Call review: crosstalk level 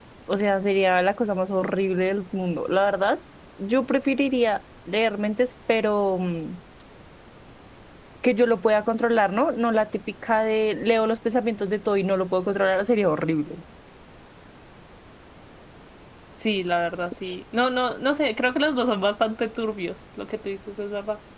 none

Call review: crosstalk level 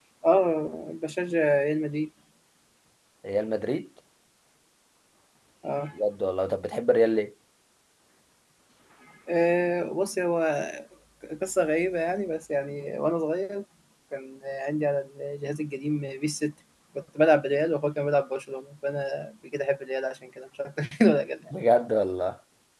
none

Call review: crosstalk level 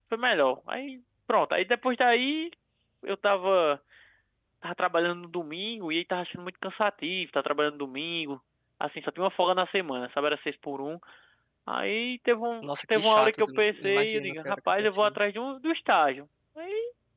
present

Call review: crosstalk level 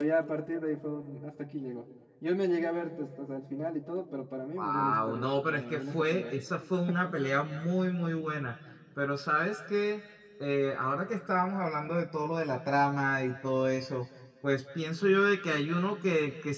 present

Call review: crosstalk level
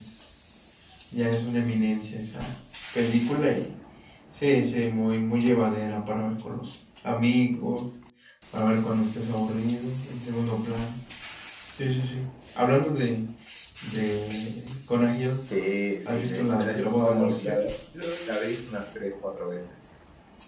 present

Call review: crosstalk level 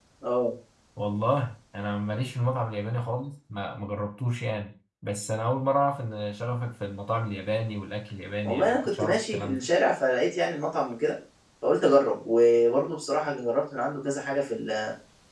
present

